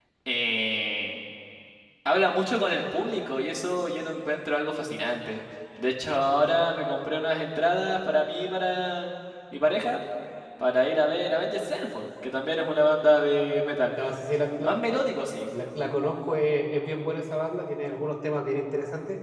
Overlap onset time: none

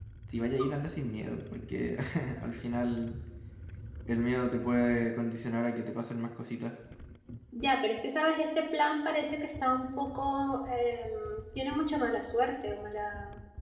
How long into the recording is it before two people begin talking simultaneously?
none

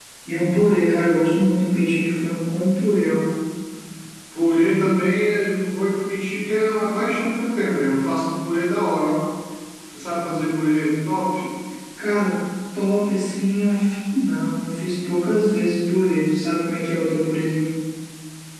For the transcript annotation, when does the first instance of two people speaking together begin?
none

